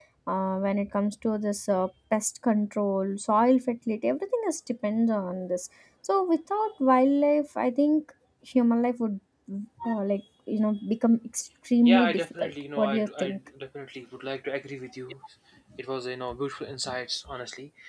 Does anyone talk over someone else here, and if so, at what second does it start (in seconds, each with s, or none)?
11.8 s